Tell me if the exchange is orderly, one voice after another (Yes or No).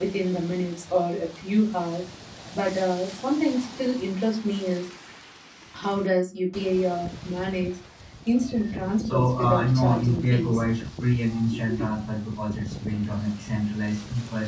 No